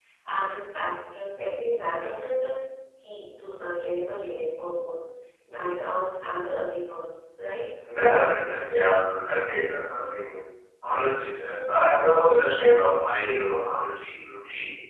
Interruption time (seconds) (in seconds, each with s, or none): none